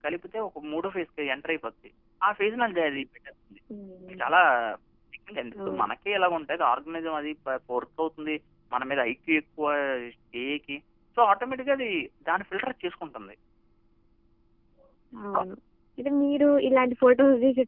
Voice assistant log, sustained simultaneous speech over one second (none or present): none